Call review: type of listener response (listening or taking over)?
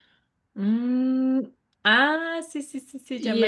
taking over